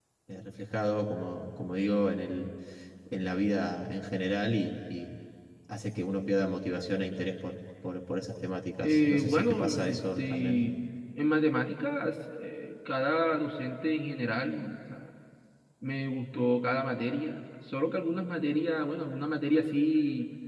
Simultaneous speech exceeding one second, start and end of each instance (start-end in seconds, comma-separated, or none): 8.8-10.7